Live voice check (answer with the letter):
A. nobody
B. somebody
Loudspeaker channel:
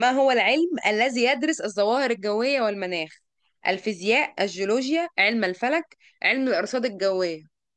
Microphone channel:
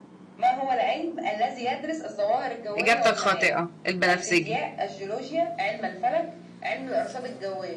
B